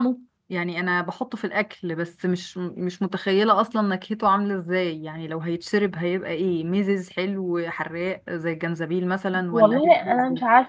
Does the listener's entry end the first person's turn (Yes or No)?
Yes